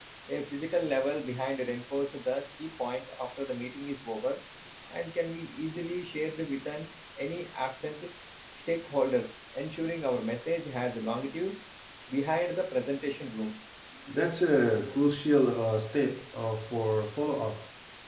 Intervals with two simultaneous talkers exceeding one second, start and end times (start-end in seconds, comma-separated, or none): none